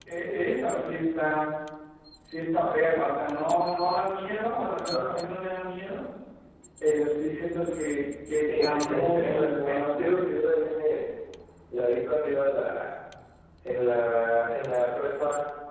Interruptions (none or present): present